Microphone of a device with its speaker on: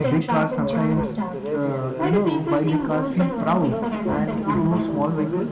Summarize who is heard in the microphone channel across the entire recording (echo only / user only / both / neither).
both